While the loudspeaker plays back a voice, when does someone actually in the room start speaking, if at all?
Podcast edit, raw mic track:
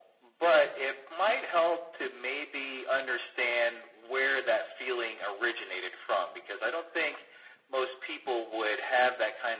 none

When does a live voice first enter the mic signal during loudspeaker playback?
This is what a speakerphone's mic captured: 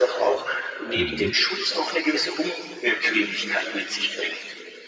1.0 s

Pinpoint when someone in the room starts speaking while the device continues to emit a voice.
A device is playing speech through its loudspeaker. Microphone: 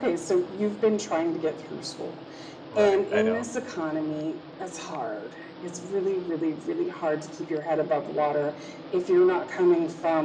2.7 s

